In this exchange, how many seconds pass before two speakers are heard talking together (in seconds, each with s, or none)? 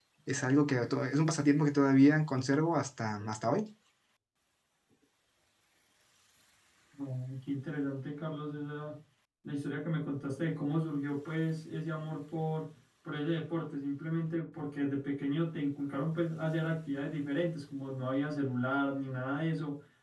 none